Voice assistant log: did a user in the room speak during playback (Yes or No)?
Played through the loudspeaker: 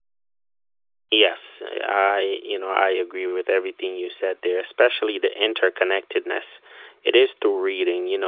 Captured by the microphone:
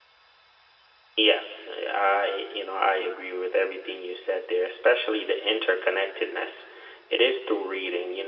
No